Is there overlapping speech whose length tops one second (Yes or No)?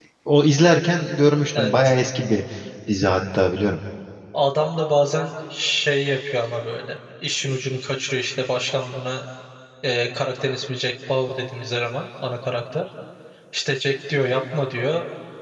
No